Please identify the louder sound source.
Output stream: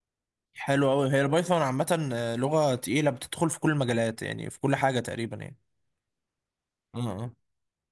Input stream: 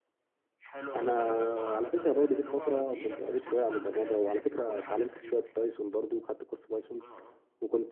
user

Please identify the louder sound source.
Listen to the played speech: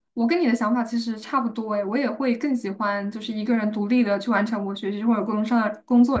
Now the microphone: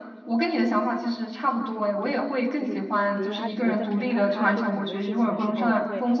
echo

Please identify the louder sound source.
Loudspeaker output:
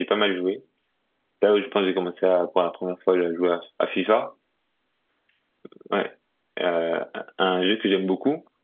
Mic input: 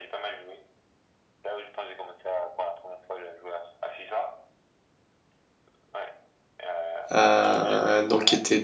user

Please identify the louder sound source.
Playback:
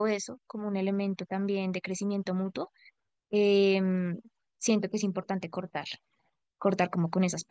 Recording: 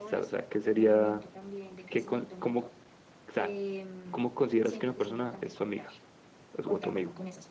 user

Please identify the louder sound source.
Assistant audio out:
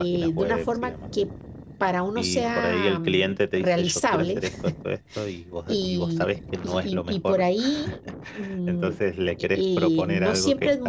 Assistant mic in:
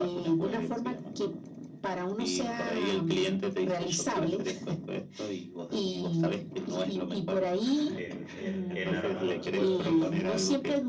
echo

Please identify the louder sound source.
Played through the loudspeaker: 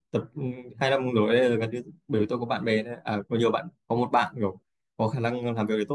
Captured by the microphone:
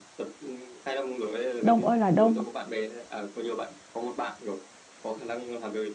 user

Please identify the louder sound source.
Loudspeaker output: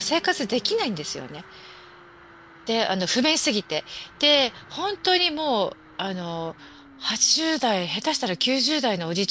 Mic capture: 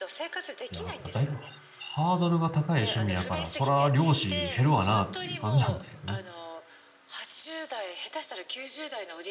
user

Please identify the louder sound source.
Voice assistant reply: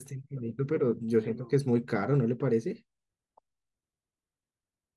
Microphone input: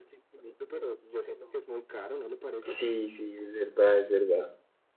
user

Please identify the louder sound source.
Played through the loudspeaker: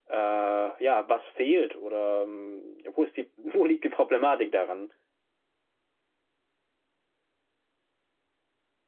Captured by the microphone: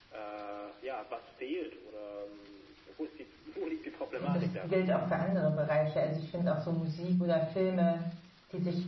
user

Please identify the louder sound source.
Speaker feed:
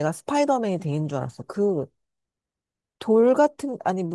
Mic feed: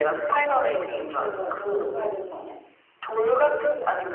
echo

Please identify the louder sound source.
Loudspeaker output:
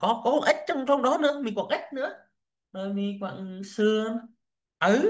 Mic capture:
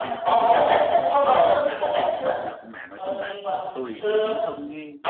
echo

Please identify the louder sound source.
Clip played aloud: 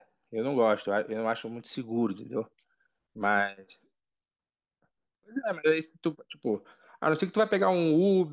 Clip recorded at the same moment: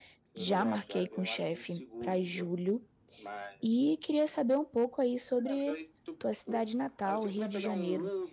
user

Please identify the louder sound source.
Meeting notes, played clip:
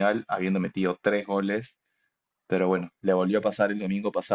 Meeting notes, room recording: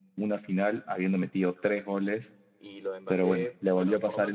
echo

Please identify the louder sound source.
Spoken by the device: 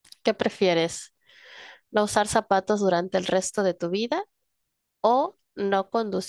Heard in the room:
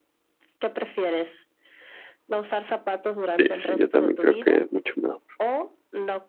user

